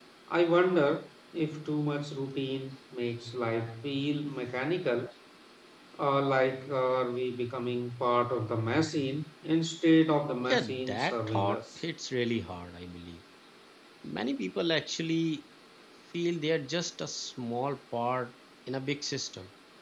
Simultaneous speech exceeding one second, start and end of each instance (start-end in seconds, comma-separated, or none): 10.5-11.8